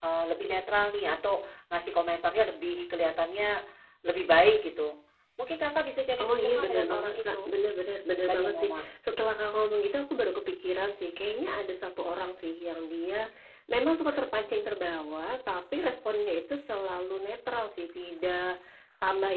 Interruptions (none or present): present